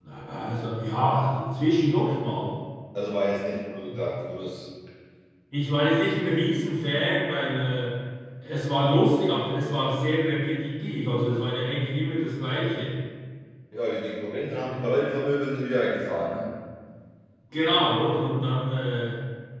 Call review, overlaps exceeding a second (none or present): none